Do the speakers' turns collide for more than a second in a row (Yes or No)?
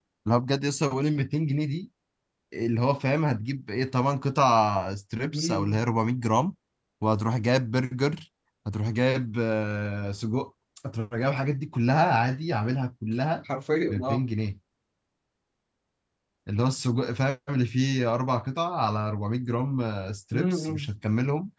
No